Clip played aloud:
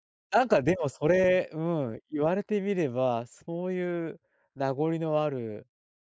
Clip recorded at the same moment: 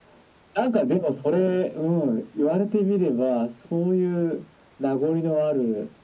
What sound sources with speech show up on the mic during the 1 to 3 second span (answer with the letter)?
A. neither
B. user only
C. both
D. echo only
D